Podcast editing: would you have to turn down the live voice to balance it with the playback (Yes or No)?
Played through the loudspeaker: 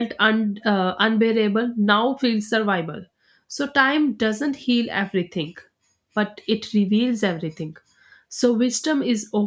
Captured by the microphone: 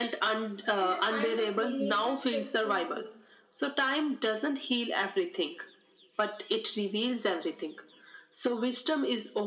No